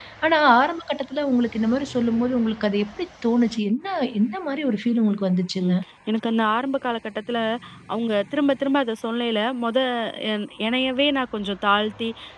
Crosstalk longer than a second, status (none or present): none